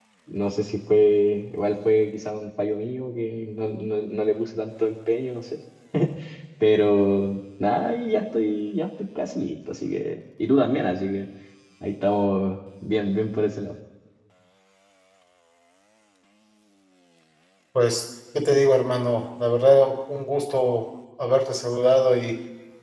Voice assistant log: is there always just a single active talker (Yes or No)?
Yes